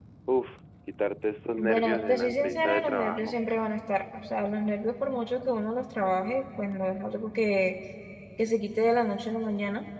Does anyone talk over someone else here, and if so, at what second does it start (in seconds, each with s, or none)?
1.6 s